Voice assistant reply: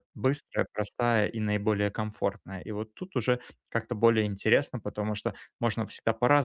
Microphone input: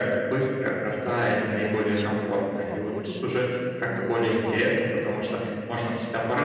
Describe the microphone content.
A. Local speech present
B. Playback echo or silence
A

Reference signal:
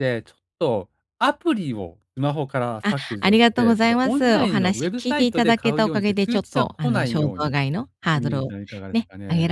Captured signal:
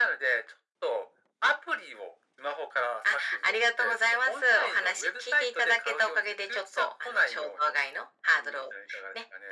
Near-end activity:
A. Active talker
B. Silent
B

